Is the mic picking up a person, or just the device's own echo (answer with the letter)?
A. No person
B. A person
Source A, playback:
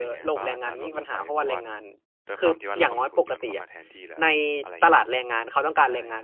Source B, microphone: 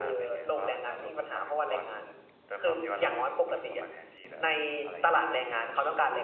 A